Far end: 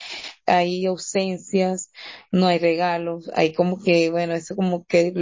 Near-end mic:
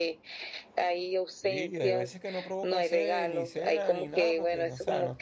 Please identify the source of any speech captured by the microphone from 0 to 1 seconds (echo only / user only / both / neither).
echo only